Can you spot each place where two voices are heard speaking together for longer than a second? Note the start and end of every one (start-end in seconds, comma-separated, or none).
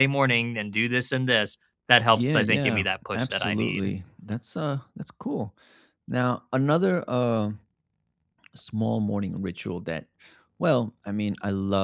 2.1-3.9